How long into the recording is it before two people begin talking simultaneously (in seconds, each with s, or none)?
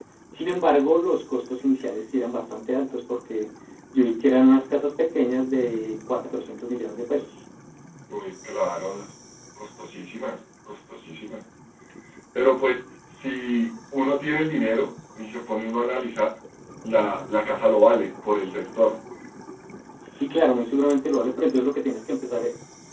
none